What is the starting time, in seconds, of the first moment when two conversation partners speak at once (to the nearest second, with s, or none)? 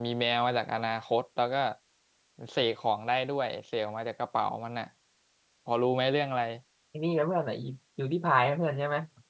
none